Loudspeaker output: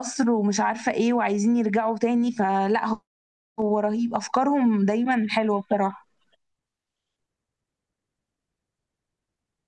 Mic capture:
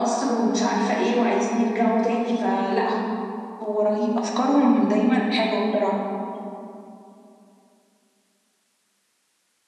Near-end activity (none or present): none